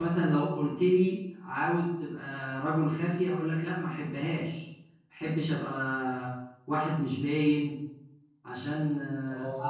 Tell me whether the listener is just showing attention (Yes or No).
No